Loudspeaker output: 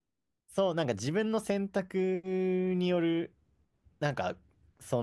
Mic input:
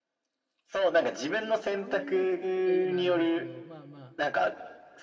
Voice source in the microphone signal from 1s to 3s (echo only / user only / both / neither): both